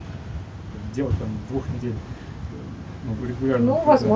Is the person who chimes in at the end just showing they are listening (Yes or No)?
No